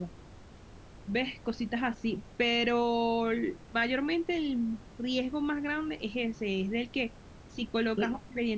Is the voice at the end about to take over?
No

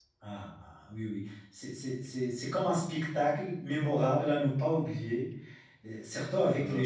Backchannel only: Yes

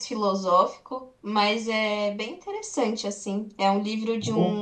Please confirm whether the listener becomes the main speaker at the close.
No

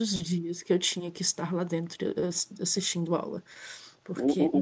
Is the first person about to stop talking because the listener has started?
Yes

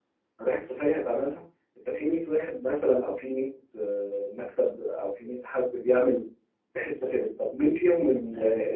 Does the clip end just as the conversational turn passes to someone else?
No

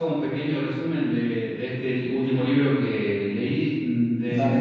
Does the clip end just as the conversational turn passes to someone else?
No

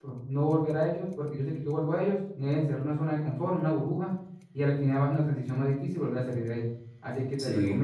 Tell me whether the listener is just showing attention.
Yes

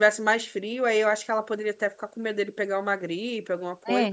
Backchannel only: No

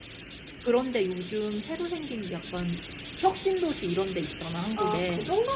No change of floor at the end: No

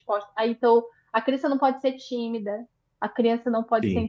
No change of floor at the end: Yes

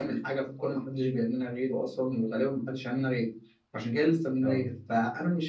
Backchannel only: Yes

